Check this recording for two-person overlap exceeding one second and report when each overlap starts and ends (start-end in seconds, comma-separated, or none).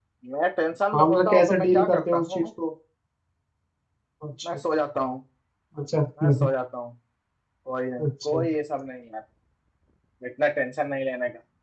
0.9-2.4